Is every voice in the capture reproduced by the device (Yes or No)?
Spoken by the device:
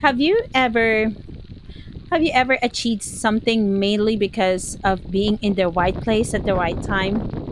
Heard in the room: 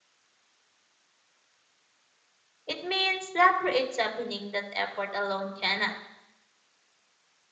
No